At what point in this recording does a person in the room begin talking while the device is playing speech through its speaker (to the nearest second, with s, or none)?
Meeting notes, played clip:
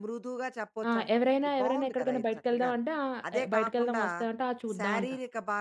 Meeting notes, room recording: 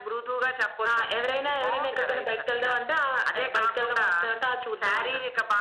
none